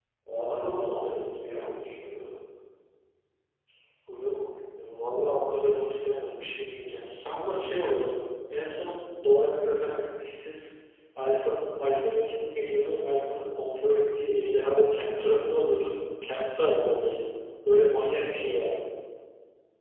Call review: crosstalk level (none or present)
none